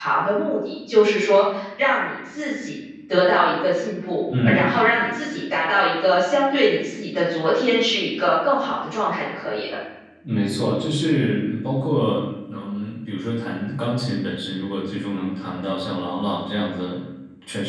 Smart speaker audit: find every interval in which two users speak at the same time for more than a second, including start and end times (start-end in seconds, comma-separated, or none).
none